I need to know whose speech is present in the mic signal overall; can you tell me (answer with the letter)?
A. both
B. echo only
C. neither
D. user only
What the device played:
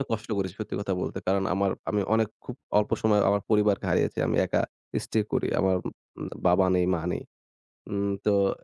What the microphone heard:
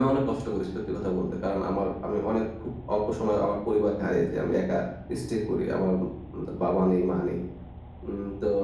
B